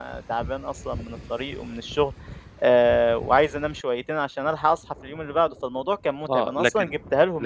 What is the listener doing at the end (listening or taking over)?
taking over